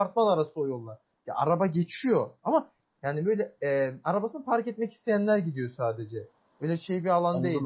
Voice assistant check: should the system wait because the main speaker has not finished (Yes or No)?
No